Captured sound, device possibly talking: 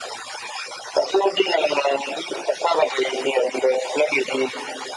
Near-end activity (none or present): none